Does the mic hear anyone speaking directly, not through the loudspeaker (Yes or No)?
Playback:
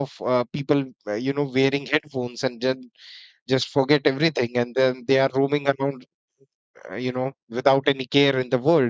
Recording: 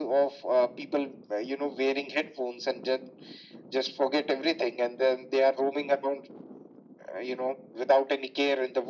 No